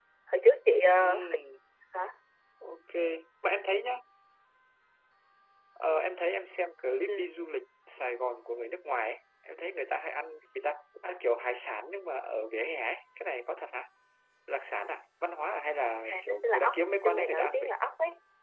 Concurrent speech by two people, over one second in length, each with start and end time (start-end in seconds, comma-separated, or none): 16.0-17.7